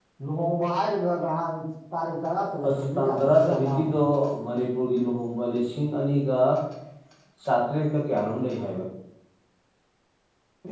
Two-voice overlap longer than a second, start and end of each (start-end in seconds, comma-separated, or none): 2.7-3.9